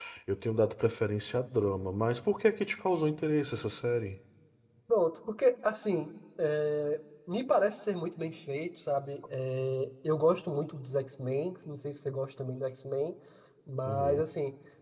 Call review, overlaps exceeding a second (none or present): none